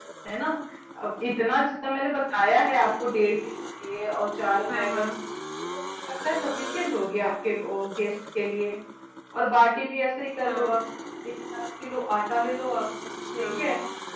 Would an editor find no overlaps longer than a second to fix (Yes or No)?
Yes